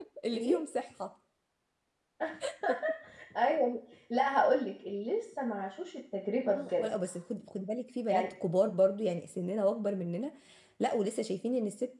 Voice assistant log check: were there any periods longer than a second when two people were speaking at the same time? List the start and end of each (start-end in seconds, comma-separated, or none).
none